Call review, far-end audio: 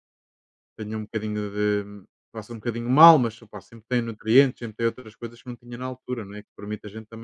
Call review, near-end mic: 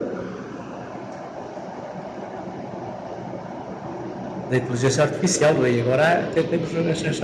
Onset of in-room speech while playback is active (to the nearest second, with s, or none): 4 s